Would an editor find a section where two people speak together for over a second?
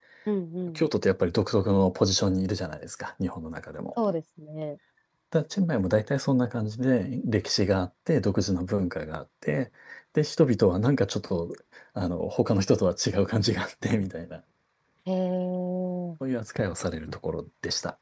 No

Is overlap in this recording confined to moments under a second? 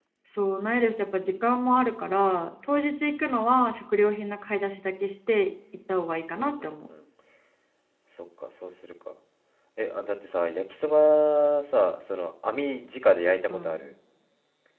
Yes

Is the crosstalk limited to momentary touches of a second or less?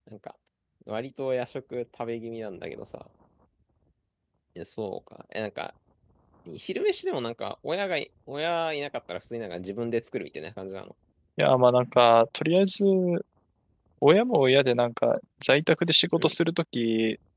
Yes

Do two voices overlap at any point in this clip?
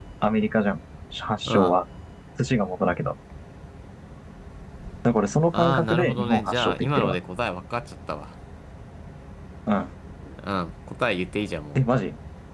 Yes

